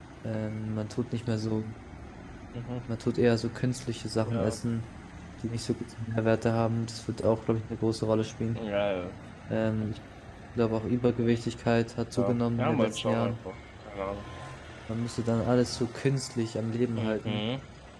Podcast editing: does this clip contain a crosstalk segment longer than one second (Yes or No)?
Yes